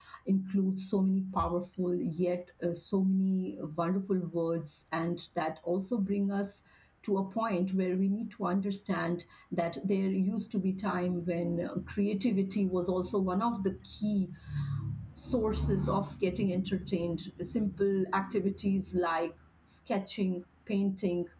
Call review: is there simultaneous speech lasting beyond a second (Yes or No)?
No